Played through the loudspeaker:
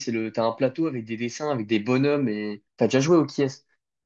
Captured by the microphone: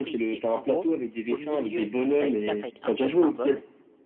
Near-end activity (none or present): present